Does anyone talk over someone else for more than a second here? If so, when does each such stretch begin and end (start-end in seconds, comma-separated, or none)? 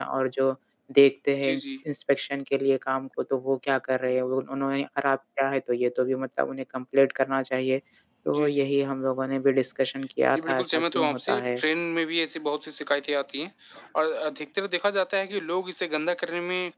10.3-11.6